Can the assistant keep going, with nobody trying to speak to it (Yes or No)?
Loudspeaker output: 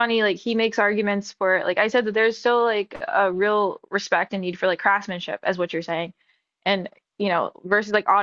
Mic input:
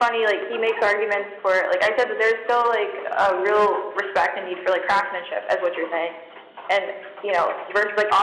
Yes